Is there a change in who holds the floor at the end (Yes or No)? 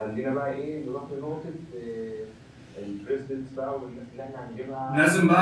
Yes